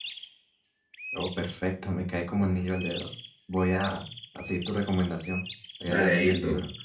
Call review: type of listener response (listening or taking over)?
taking over